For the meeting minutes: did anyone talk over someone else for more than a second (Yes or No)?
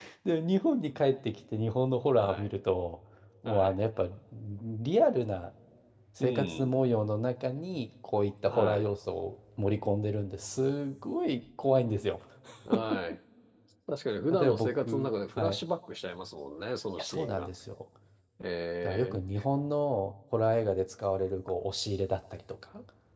Yes